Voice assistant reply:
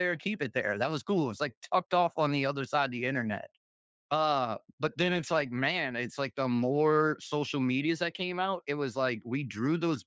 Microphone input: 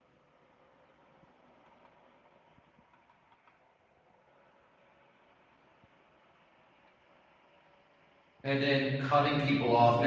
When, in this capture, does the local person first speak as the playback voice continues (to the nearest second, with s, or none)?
8 s